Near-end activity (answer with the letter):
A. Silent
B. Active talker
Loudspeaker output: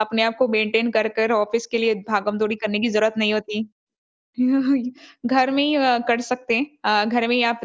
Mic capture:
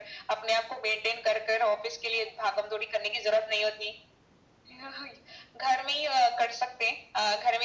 A